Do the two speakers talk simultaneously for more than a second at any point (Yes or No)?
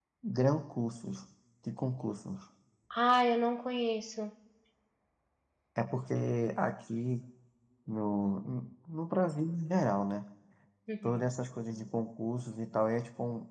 No